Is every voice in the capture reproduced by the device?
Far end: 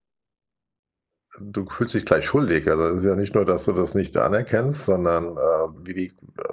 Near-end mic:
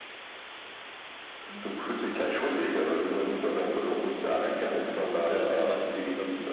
No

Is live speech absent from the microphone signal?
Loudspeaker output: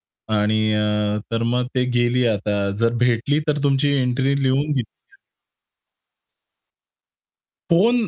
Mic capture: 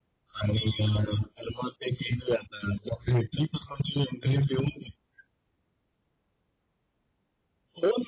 Yes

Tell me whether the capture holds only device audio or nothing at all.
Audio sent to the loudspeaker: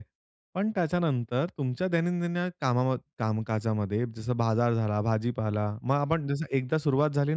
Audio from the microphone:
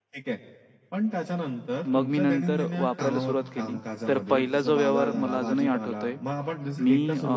No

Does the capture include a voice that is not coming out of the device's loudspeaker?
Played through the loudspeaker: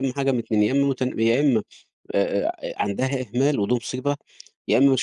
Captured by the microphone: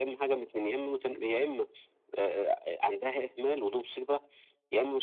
No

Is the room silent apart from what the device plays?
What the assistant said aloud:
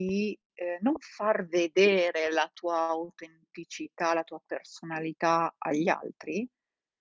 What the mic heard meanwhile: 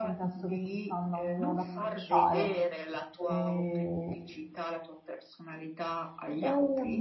No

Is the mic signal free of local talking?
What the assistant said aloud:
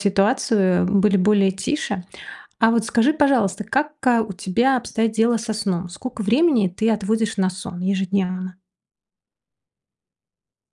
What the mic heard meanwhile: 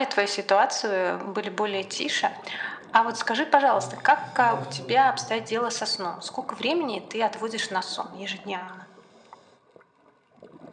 No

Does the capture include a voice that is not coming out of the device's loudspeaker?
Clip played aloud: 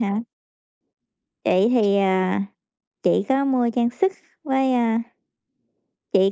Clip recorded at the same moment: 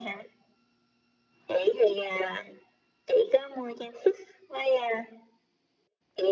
No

